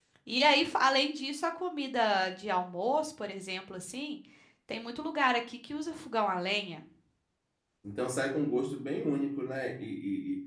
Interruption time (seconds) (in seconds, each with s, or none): none